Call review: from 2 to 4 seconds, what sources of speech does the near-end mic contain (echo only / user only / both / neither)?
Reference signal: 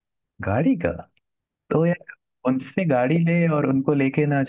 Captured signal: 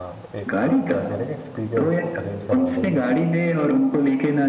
both